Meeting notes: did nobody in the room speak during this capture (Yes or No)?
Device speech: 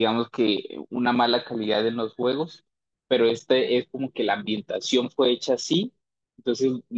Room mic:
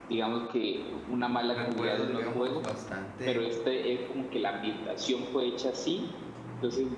No